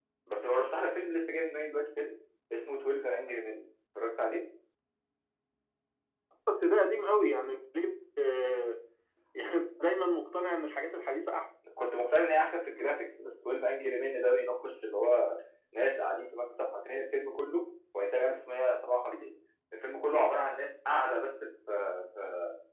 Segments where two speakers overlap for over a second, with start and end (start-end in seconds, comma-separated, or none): none